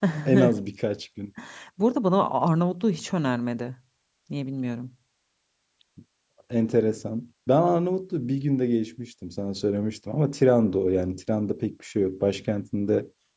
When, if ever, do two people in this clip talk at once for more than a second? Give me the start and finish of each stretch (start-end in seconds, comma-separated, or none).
none